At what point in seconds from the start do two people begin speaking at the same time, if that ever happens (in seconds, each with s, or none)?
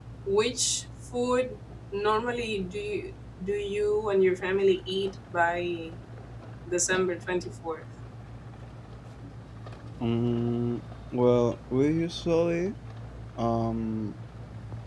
none